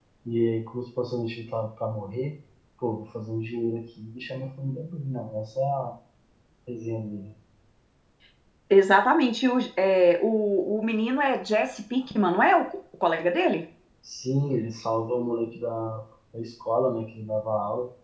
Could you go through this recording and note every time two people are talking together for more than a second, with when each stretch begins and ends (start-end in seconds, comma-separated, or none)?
none